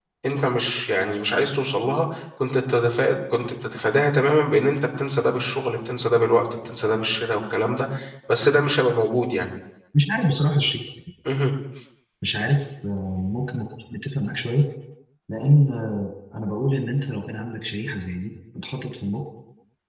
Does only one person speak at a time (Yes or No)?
Yes